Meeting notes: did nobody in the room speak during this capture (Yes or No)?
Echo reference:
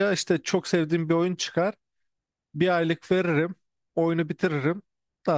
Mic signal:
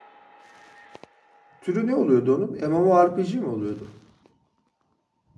No